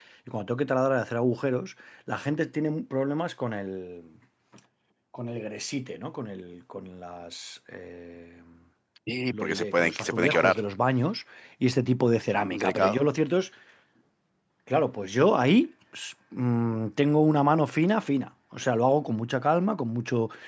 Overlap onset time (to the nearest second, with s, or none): 9 s